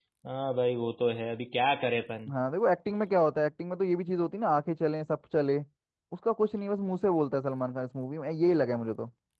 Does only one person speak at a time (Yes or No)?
Yes